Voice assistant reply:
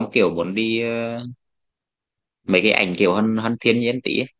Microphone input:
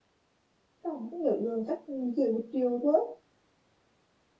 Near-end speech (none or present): present